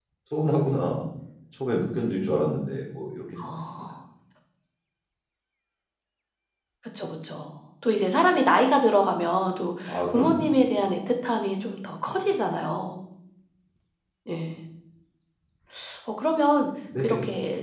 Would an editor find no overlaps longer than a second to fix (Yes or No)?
Yes